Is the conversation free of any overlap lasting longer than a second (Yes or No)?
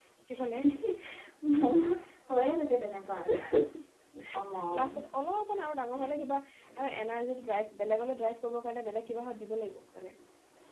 Yes